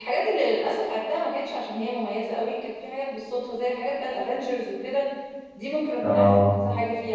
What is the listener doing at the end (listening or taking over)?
listening